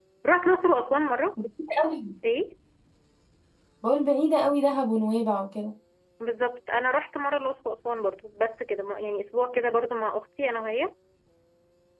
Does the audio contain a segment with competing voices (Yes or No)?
No